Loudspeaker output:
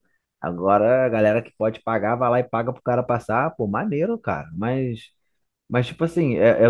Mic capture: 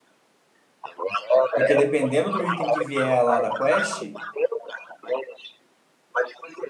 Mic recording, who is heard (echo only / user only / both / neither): both